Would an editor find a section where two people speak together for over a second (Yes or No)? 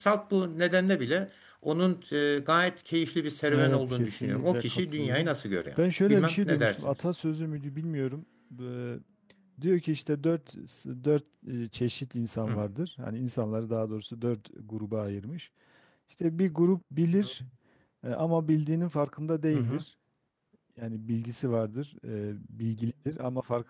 Yes